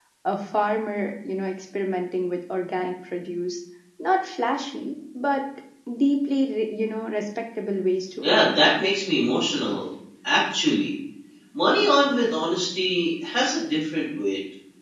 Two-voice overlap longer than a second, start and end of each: none

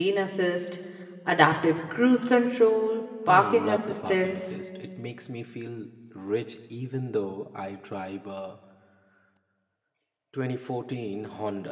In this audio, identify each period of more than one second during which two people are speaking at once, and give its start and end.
3.3-4.5

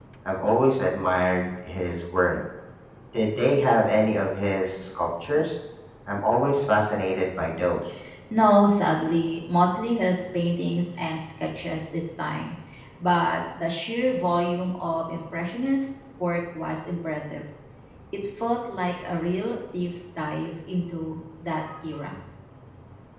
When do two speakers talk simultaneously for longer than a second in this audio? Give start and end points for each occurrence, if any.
none

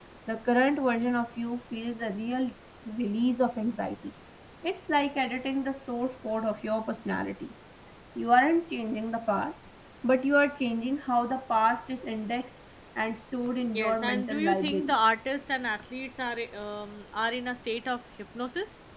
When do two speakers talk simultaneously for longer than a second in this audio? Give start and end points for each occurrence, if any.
13.7-15.0

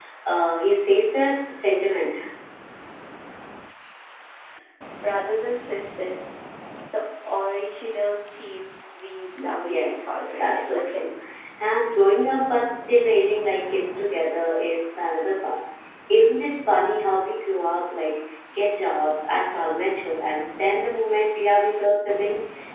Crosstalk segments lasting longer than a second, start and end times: 9.4-11.1

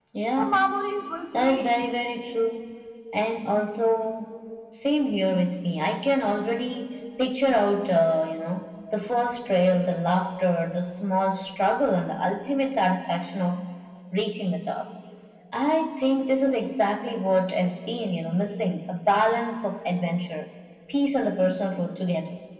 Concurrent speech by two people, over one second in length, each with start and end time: none

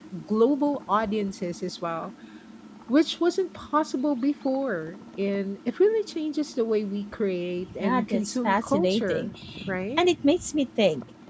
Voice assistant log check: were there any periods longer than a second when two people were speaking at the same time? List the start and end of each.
7.8-9.3

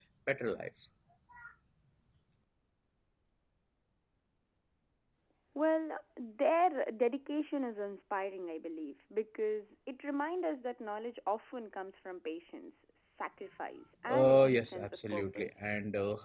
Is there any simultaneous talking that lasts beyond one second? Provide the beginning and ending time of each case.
14.1-15.6

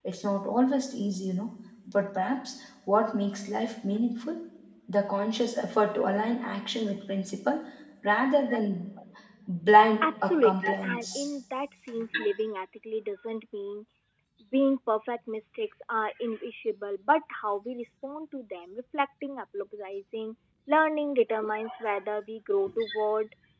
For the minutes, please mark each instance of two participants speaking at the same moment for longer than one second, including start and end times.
10.0-11.3

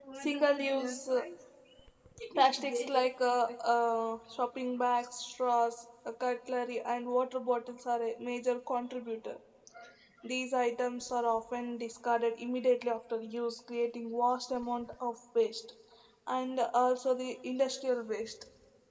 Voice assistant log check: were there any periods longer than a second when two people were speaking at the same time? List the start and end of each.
none

